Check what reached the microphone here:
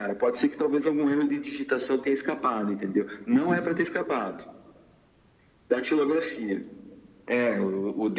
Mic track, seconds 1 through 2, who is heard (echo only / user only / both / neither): echo only